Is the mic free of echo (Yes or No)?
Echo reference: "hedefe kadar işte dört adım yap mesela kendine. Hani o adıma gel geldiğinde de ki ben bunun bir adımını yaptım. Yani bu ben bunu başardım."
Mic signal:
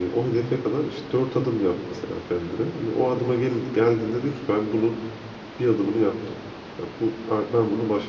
No